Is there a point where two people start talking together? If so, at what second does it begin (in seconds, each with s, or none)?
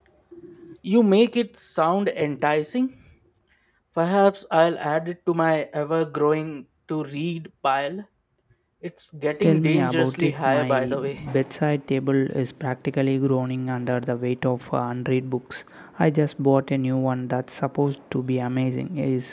9.4 s